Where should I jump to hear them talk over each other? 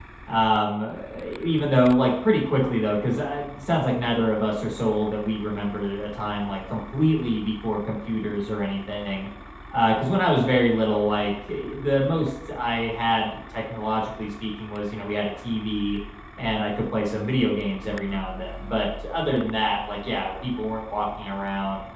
none

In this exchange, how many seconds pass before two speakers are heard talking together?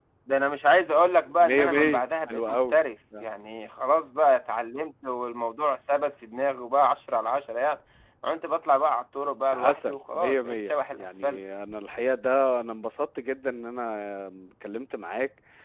1.4 s

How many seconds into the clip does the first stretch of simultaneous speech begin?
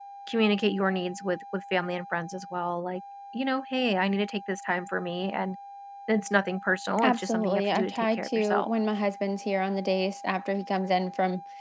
7.0 s

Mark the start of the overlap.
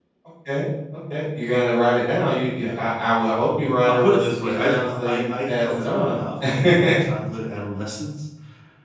3.9 s

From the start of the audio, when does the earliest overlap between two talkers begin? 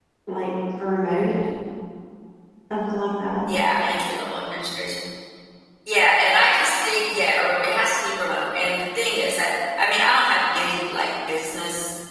none

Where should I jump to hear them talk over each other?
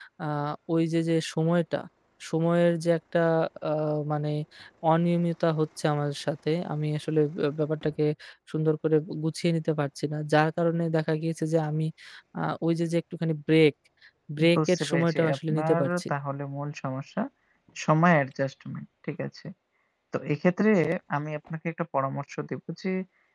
14.6 s

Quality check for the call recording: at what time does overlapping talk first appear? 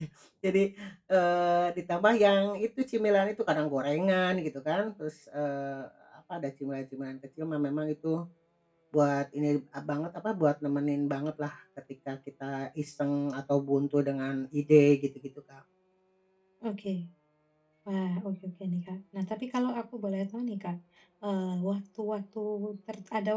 none

